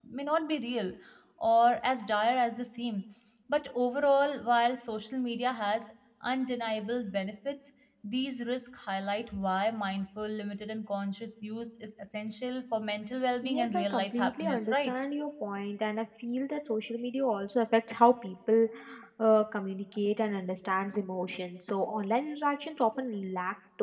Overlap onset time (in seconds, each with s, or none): 13.4 s